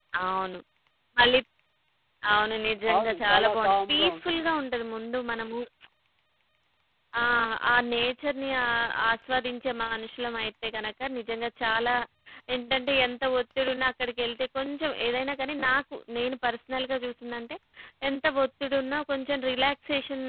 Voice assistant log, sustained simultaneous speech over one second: present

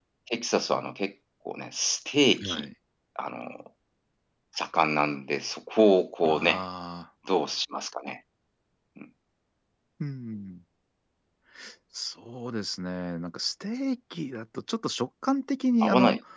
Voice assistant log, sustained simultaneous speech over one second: none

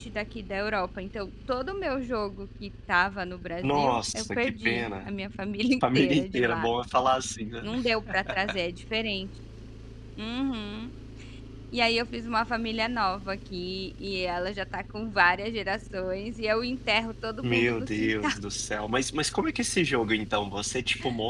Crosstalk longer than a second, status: present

